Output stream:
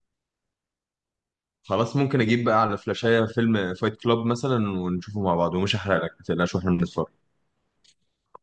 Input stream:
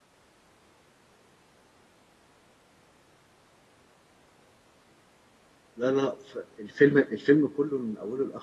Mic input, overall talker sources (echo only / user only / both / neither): user only